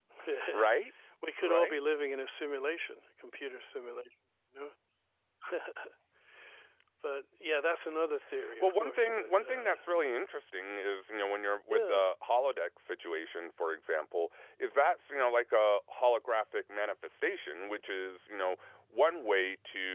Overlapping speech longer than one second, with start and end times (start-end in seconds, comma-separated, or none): 8.6-9.8